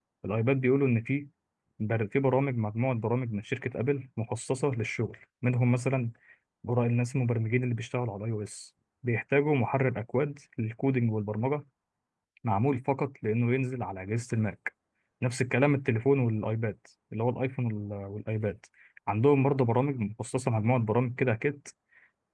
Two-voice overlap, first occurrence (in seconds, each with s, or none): none